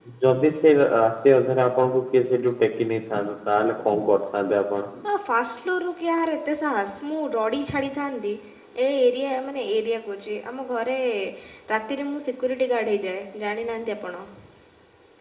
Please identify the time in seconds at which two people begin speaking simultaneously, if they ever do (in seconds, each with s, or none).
none